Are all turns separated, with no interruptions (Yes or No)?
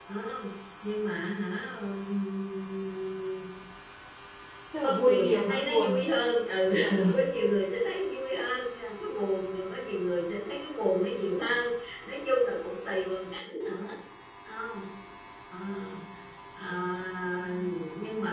No